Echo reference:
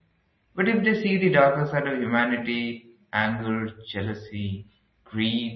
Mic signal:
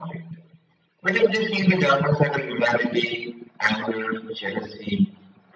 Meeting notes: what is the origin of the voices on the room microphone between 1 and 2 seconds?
echo only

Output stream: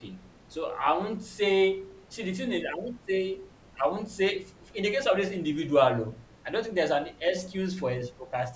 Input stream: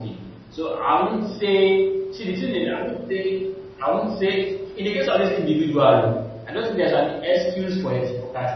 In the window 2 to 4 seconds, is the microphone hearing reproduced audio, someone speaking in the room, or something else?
echo only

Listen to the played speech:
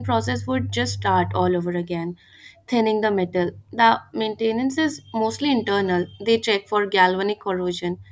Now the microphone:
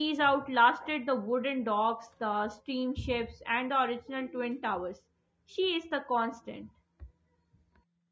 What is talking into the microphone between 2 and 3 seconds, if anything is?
user only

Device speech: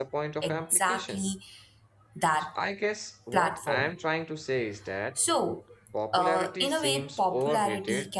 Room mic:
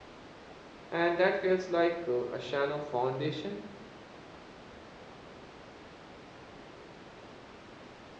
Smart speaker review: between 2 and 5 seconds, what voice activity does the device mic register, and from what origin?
user only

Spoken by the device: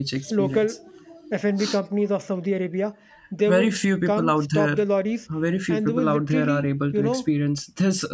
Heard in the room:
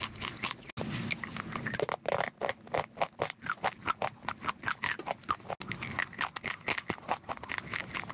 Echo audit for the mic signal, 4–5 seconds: neither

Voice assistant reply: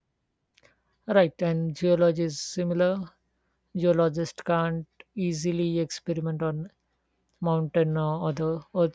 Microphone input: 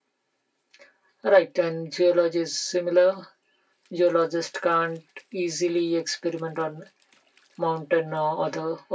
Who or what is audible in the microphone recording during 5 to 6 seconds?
echo only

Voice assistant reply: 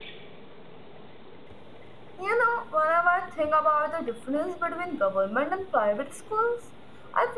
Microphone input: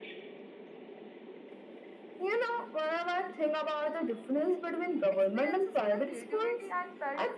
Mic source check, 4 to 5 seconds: echo only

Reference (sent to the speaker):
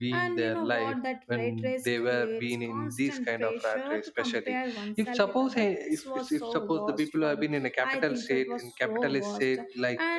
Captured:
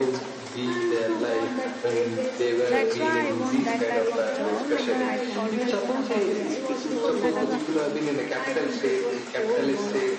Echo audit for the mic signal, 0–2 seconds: echo only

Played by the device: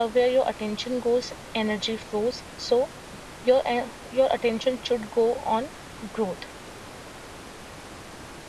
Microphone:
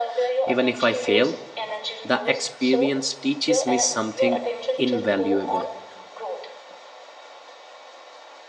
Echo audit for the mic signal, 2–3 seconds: both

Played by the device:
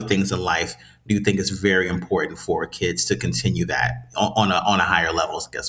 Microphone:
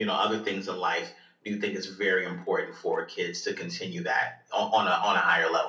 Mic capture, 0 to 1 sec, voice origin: echo only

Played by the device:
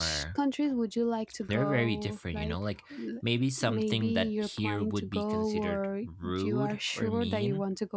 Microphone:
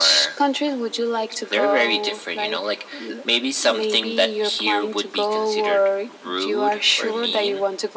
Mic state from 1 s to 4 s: echo only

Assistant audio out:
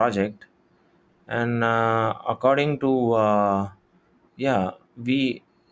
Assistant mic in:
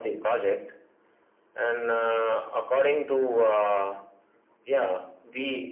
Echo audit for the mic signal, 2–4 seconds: echo only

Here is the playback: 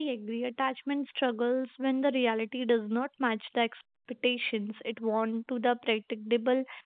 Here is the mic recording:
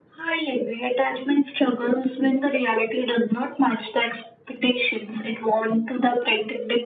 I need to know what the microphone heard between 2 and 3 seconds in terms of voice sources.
echo only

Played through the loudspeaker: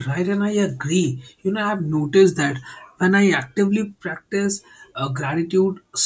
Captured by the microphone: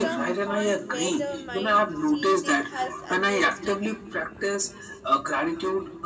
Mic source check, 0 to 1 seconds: both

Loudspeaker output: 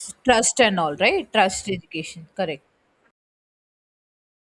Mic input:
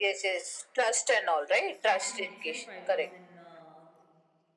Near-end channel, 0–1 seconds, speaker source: echo only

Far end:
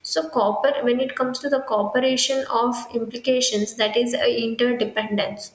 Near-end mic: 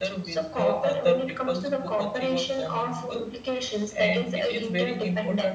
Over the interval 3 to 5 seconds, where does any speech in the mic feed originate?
both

